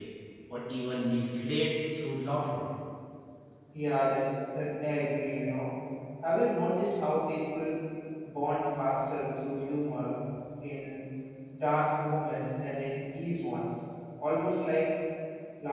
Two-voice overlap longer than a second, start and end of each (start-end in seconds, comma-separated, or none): none